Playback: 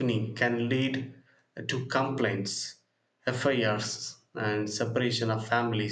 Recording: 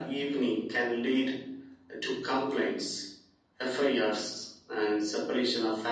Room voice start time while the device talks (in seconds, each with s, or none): none